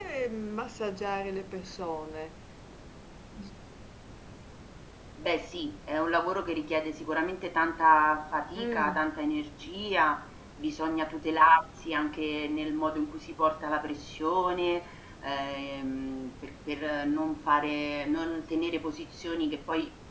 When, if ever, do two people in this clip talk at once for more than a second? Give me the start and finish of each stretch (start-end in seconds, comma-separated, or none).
none